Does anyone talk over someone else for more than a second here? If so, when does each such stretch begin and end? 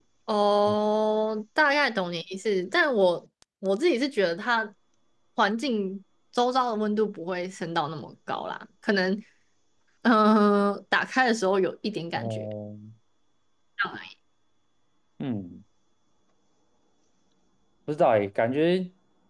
none

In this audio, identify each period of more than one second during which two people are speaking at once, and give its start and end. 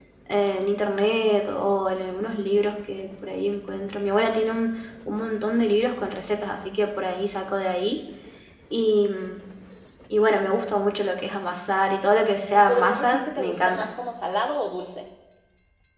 12.2-13.9

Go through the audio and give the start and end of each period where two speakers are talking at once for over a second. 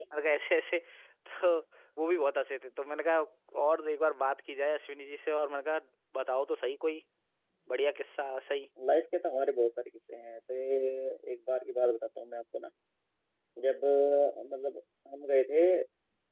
none

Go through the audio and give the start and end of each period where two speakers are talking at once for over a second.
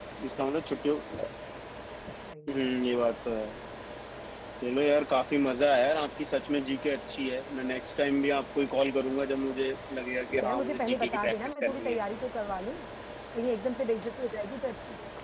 10.4-12.0

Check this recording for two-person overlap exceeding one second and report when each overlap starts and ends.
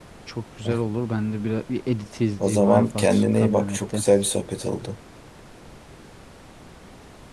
2.4-4.0

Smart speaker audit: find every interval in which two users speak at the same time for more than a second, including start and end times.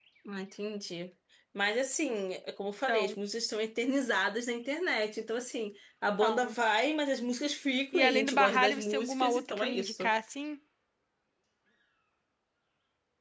7.9-10.1

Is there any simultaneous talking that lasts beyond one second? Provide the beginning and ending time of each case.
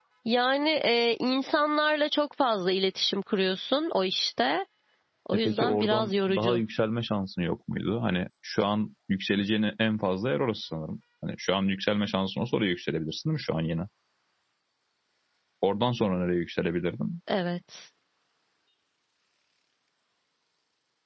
5.3-6.6

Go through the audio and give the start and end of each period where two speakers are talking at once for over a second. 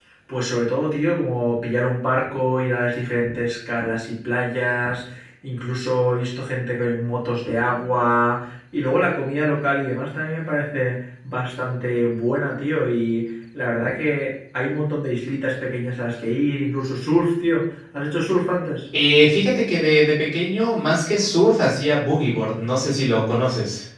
none

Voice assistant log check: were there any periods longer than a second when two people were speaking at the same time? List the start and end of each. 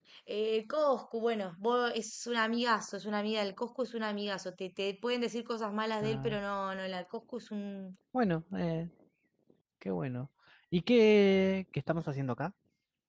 none

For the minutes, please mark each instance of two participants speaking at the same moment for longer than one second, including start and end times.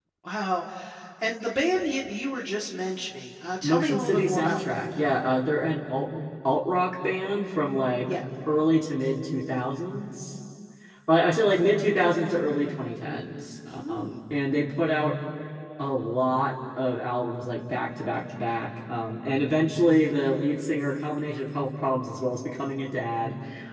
3.6-4.8

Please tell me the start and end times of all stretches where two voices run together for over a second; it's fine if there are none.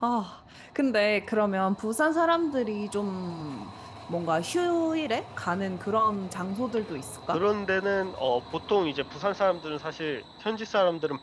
none

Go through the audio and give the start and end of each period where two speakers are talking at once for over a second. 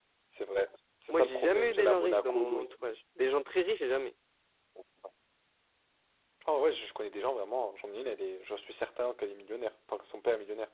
1.1-2.7

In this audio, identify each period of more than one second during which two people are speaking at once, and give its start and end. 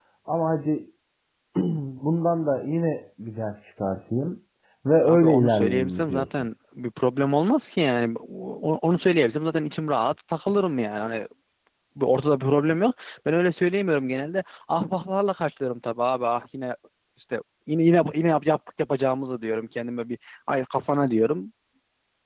5.0-6.5

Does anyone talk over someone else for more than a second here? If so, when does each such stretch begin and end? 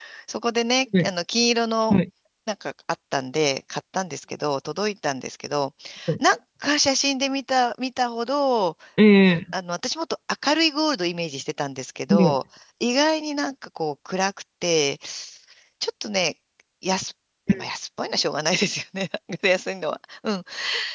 none

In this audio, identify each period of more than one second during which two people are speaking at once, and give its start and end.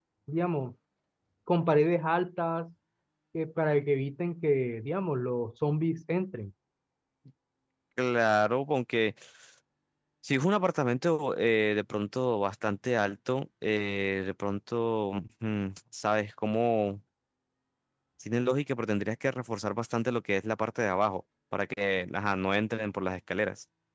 none

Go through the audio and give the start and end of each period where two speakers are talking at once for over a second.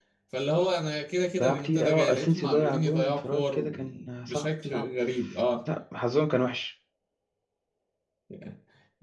1.4-4.9

